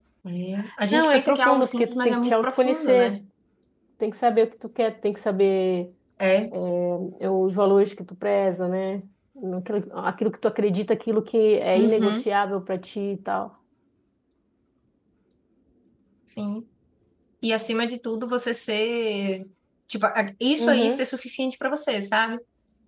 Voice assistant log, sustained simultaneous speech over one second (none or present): present